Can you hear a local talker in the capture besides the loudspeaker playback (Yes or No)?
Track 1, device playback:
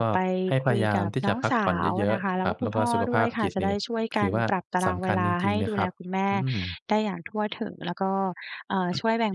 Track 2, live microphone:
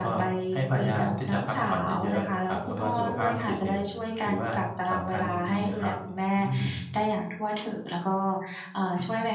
No